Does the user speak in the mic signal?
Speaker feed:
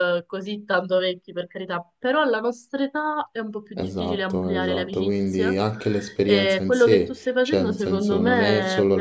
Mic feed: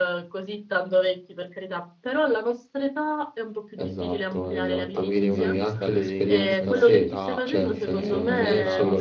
Yes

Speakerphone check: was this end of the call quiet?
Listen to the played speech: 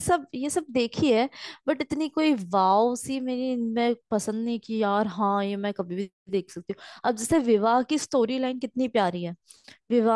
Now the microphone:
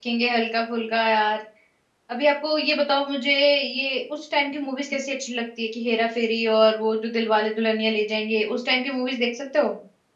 No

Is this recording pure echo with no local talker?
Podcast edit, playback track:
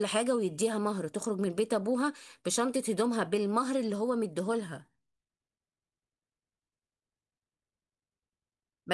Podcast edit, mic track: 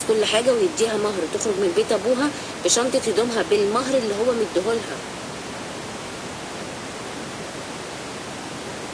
Yes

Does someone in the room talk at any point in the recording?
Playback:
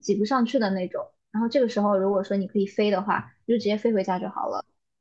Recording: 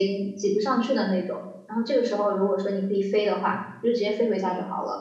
No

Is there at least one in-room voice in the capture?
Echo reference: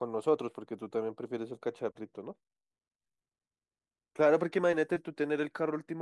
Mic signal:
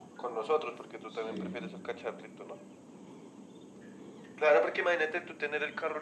Yes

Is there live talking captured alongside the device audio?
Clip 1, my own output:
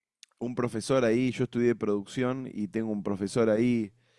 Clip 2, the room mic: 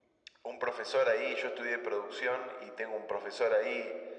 No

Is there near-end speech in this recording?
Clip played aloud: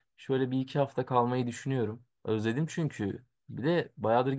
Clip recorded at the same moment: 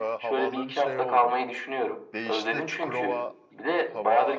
Yes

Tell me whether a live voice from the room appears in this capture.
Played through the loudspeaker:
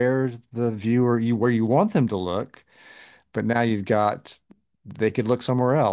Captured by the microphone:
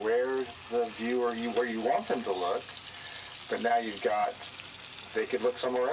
No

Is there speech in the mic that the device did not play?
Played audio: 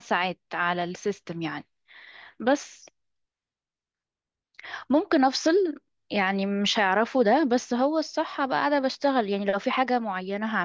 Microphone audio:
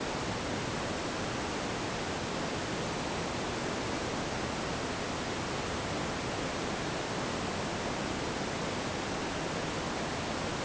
No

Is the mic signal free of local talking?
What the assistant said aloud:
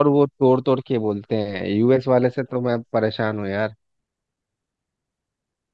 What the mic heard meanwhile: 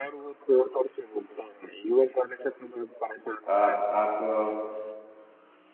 No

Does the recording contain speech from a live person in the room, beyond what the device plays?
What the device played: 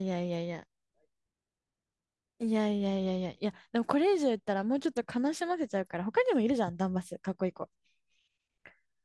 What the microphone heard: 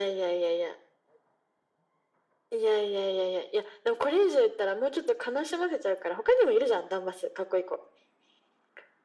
No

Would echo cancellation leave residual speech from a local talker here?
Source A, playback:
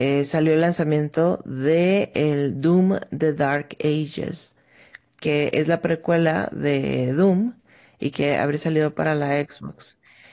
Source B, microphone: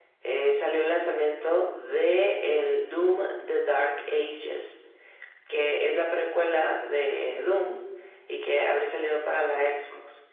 No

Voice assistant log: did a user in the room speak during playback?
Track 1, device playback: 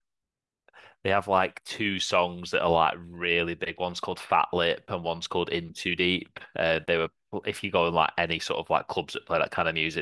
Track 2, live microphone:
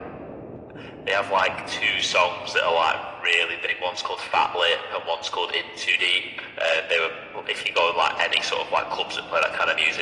No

